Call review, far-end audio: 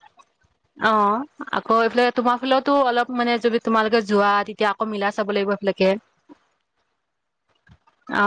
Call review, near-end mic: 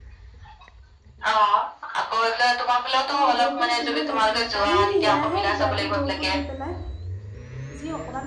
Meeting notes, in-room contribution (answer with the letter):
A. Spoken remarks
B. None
A